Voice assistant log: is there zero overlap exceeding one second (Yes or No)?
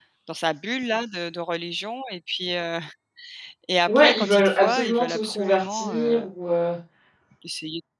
No